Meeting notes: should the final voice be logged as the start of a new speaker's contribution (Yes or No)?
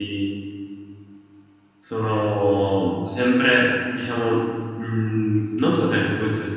No